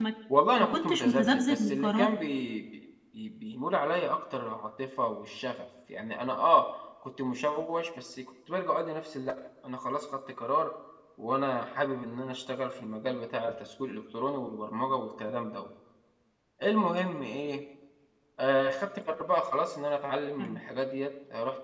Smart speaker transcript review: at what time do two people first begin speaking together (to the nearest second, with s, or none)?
1 s